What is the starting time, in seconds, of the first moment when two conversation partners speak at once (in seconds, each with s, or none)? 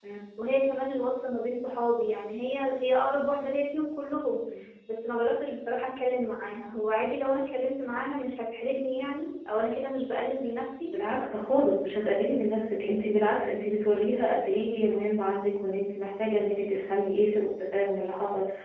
none